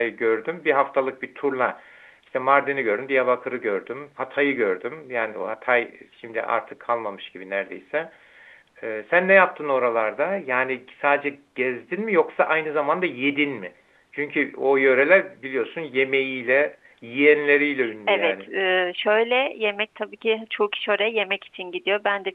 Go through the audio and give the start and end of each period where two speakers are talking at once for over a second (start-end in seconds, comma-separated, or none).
none